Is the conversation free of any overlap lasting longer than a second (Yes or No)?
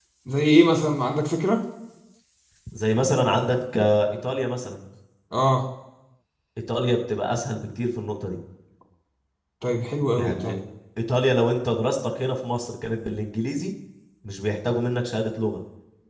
Yes